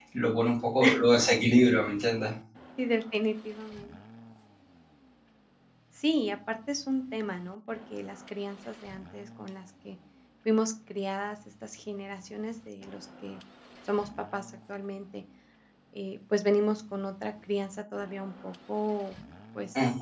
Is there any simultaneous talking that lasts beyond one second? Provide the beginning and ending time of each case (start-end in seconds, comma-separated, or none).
none